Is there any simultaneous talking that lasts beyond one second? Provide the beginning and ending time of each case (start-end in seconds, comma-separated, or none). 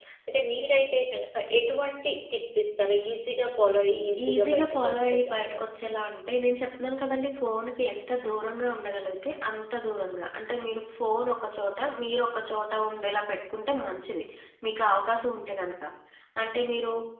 4.3-5.6